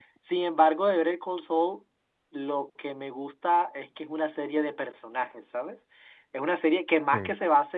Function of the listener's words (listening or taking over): listening